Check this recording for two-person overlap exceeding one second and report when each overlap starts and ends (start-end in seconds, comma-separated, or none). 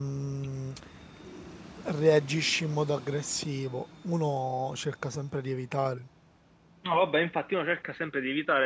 none